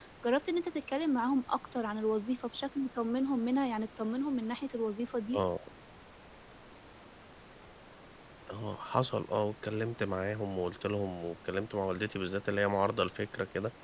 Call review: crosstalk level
none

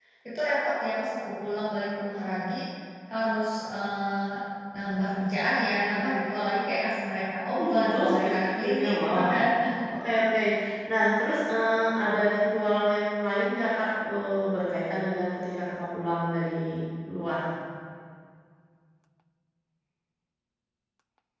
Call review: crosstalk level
present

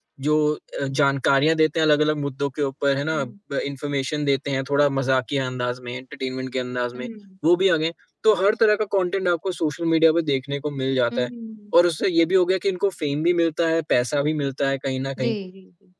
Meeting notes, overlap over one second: none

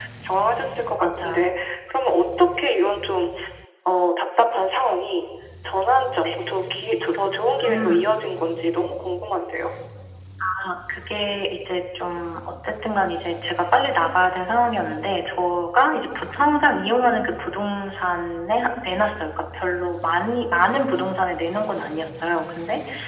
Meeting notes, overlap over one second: none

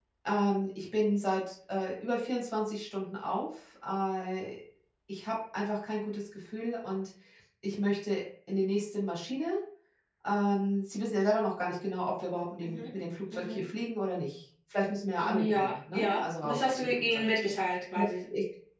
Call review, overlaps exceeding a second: present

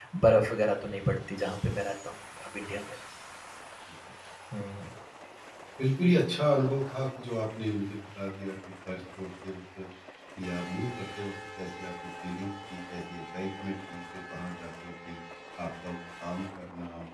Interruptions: none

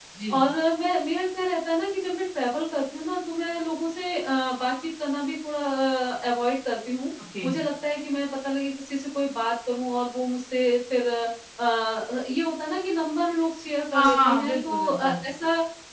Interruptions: present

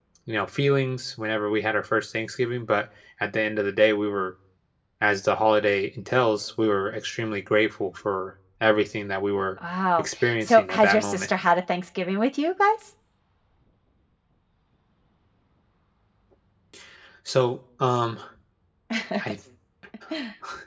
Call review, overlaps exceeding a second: present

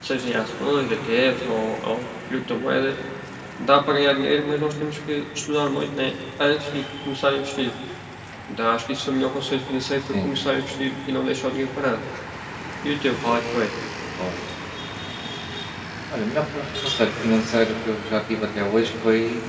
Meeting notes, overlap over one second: none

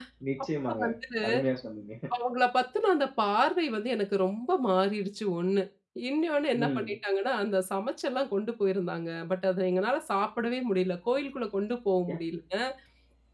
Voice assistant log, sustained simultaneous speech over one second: none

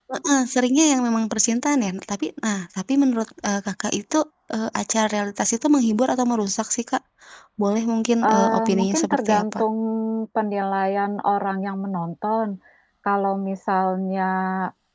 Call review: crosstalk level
present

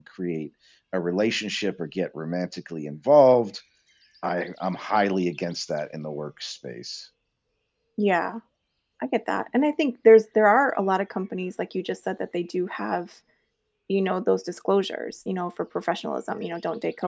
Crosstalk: none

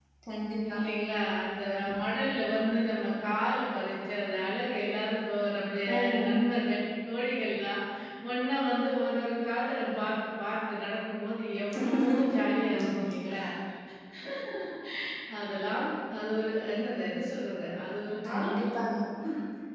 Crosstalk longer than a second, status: none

